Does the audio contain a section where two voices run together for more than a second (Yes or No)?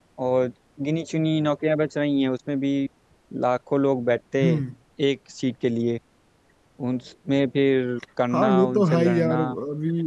Yes